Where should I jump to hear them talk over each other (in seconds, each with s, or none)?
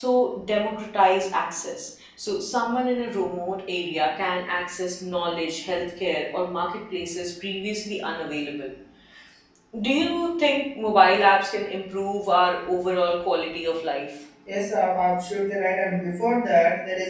none